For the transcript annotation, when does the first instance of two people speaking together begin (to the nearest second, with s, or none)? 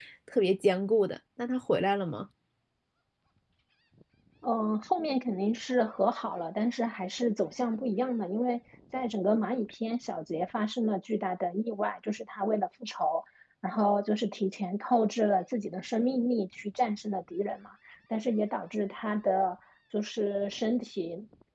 none